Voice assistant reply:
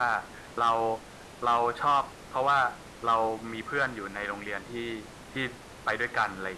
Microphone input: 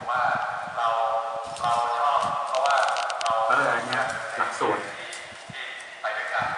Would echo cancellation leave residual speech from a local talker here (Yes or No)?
Yes